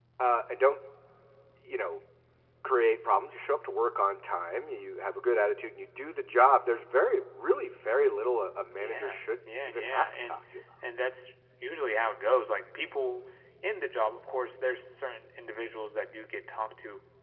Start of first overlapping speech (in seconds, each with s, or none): 8.7 s